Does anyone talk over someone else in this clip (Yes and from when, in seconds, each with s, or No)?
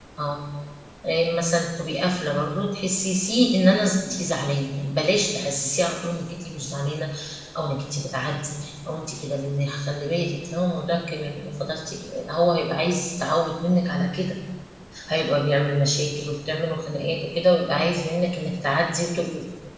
No